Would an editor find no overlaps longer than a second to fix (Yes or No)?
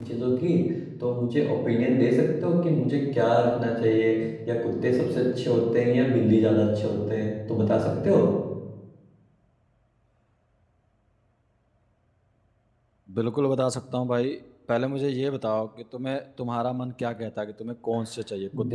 Yes